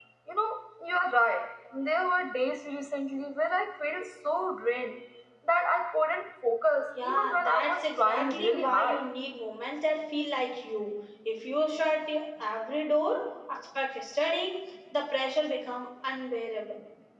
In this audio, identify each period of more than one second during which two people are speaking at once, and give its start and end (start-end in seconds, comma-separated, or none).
7.0-9.0